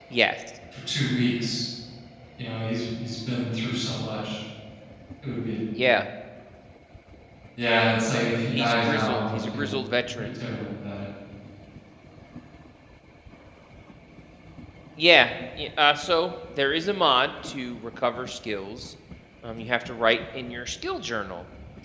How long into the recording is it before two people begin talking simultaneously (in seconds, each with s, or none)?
8.5 s